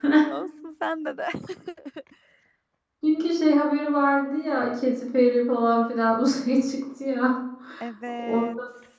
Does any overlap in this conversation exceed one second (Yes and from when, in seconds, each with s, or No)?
No